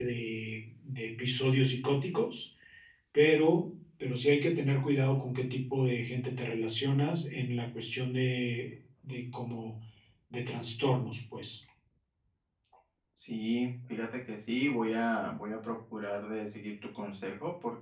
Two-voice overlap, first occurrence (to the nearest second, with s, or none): none